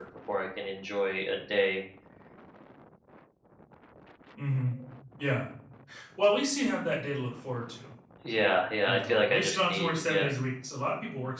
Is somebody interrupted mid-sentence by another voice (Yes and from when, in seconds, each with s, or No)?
Yes, from 8.8 s